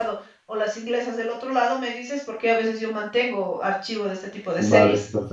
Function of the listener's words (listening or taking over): taking over